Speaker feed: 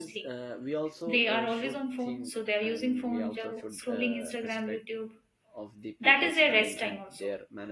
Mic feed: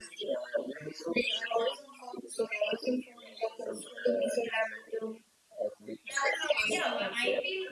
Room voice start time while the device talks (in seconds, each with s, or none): 6.6 s